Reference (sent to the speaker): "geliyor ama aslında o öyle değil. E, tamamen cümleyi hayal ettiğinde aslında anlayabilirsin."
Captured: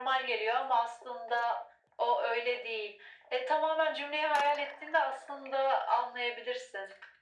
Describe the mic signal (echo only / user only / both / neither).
echo only